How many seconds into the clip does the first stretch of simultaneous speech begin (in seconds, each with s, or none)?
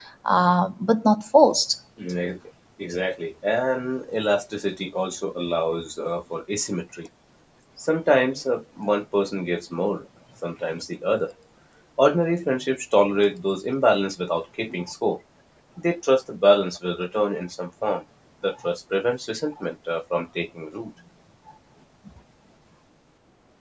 none